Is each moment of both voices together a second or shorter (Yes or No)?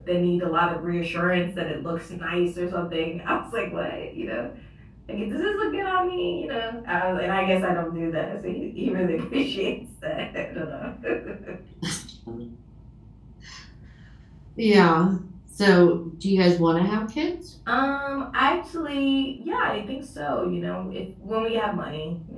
Yes